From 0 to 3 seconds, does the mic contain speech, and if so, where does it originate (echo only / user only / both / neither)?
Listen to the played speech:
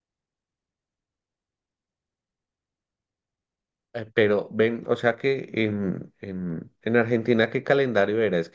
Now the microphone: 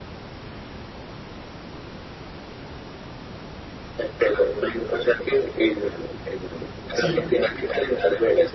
neither